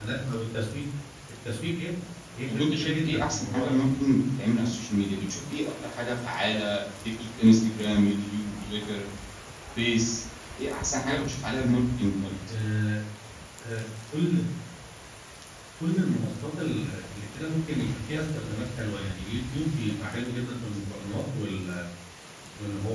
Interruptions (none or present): present